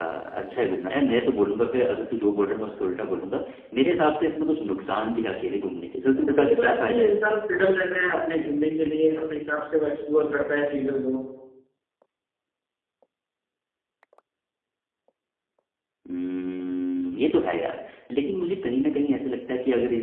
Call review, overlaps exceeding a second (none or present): present